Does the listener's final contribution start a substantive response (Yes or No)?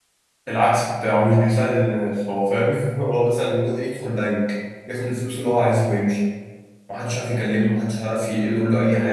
Yes